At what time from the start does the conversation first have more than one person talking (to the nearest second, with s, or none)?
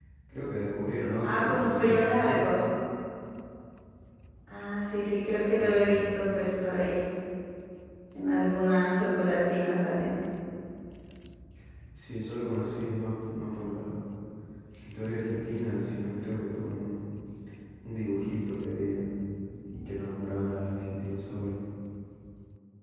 1 s